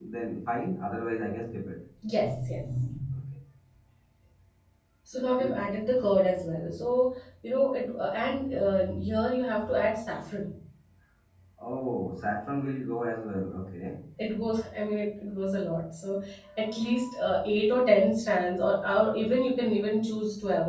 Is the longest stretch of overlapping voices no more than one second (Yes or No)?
Yes